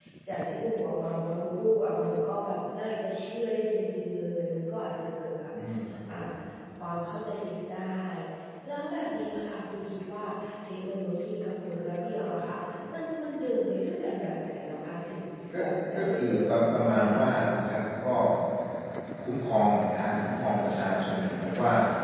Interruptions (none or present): present